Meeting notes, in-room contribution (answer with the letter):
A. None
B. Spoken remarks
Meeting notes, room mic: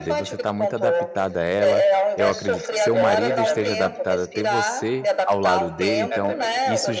B